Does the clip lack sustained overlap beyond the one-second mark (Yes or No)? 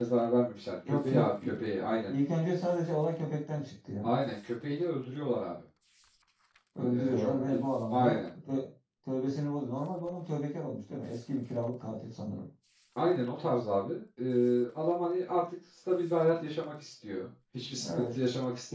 No